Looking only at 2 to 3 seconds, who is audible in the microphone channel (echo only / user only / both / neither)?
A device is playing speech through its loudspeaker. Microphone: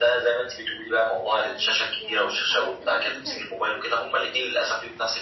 both